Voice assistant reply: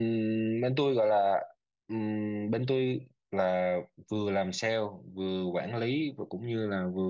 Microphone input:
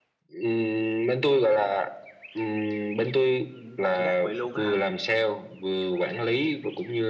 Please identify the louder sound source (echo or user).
echo